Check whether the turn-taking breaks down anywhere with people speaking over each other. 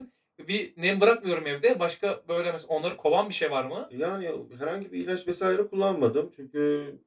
No

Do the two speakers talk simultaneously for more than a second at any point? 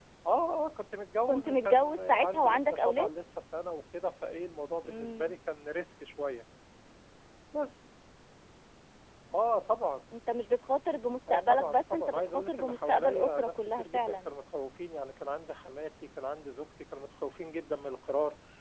Yes, from 1.3 s

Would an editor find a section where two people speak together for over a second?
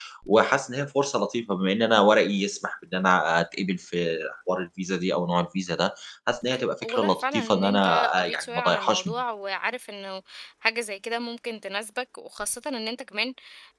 Yes, from 6.8 s

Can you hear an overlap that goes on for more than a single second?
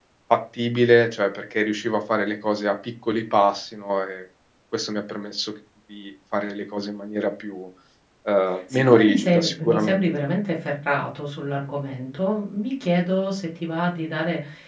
Yes, from 8.7 s

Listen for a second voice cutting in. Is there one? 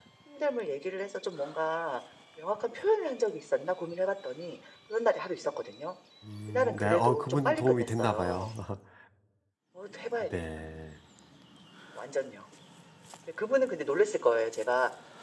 Yes, from 6.5 s

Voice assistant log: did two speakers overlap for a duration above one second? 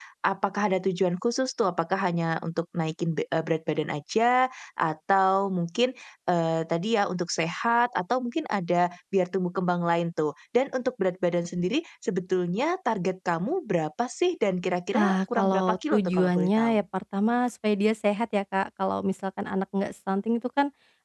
Yes, from 14.9 s

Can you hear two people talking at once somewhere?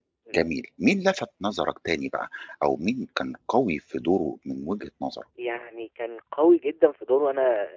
No

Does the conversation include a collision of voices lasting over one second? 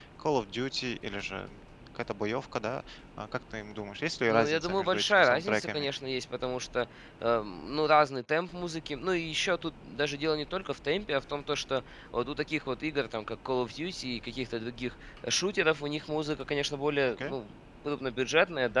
Yes, from 4.3 s

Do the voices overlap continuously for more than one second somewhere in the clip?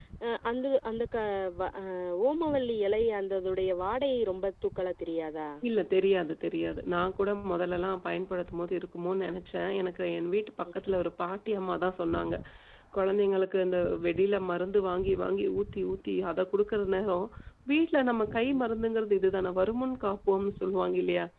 No

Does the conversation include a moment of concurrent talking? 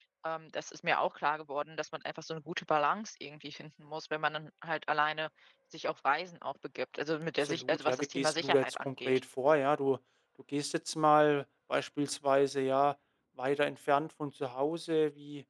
Yes, from 7.4 s

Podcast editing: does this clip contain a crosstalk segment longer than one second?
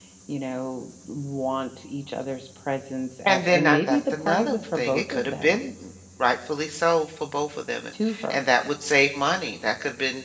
Yes, from 3.3 s

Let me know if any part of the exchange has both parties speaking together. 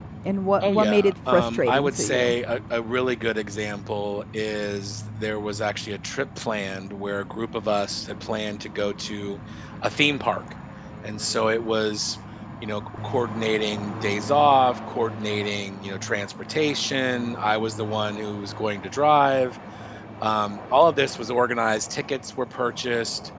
Yes, from 0.6 s

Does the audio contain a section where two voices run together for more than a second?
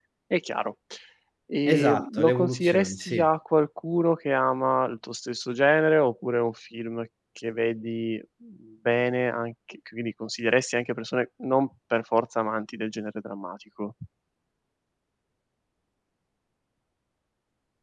Yes, from 1.7 s

